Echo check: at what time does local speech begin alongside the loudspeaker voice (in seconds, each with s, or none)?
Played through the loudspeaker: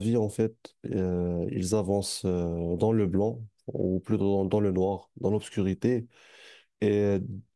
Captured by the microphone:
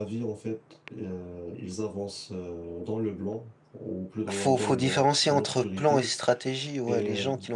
4.3 s